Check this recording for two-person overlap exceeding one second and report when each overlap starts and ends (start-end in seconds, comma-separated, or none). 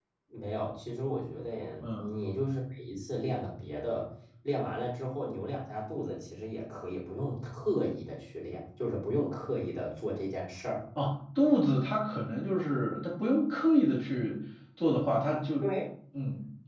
none